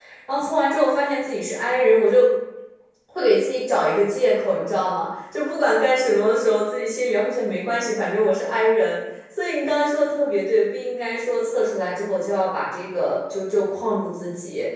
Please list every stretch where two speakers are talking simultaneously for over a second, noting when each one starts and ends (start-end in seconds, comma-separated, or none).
none